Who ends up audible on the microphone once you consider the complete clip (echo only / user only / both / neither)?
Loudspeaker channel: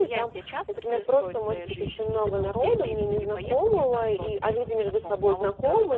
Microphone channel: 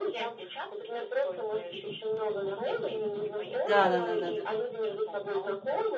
both